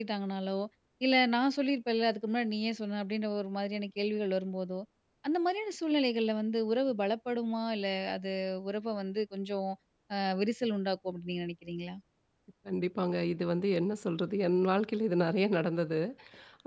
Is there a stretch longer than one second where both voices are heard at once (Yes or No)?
No